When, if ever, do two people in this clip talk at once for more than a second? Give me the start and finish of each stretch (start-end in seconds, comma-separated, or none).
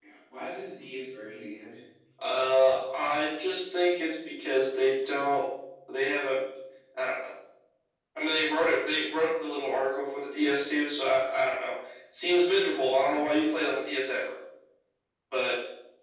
none